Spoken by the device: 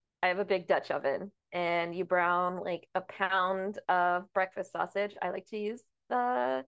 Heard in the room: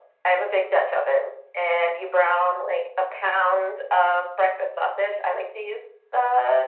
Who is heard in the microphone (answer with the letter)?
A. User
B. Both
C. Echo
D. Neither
C